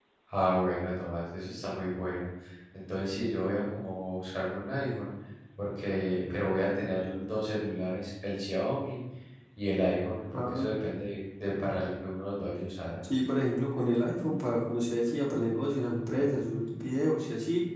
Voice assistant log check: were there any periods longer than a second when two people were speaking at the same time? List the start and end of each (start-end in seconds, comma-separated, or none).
none